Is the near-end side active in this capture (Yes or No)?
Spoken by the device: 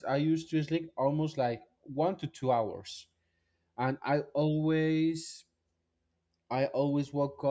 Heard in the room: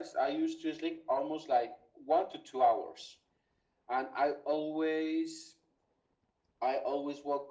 No